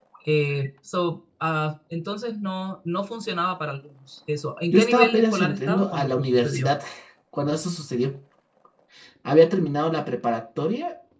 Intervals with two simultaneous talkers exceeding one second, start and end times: 4.7-6.7

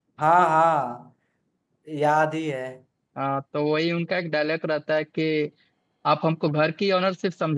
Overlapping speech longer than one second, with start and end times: none

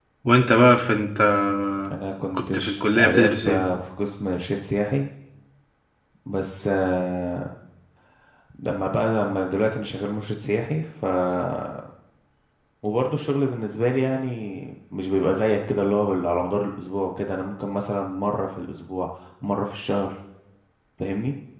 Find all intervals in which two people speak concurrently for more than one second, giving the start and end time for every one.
2.3-3.6

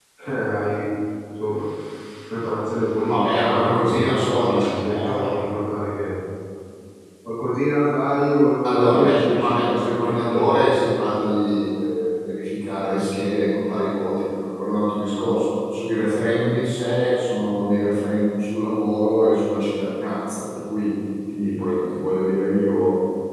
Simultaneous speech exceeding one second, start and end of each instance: 3.1-5.3, 8.7-10.7

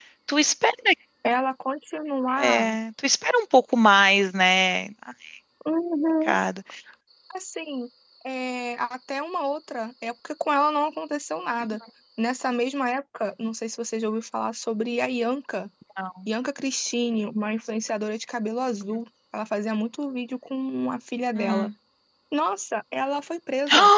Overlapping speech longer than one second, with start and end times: none

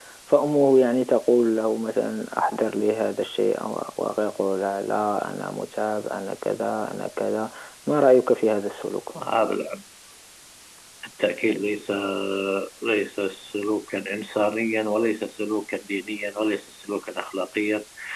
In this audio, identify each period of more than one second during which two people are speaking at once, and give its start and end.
none

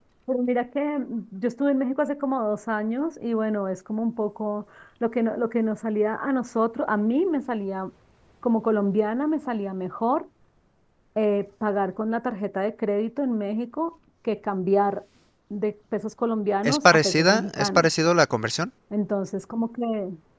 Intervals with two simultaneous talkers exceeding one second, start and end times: 16.6-17.9

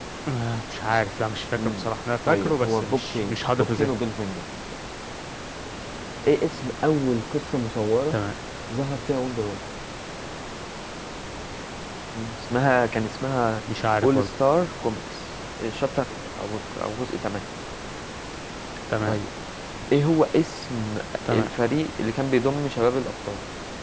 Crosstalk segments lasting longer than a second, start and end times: 2.3-3.9

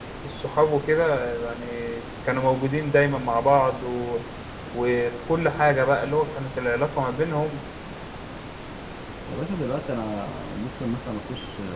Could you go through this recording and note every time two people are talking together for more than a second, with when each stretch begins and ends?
none

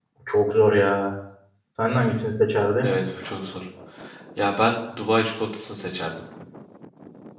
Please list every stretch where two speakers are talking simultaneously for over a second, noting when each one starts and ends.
none

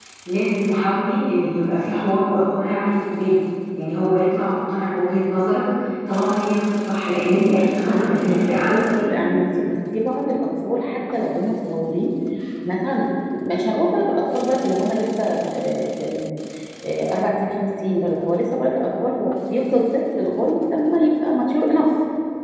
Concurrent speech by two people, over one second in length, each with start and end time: 7.9-9.2

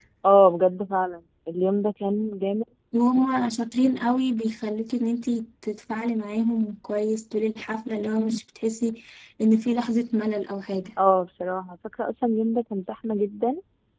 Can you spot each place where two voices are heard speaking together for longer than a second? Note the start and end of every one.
none

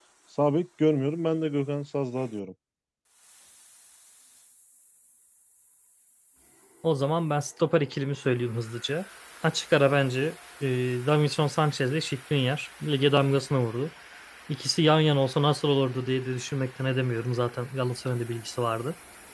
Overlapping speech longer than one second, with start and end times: none

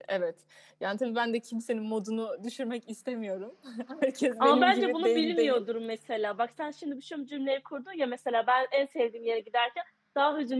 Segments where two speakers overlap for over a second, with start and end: 4.4-5.6

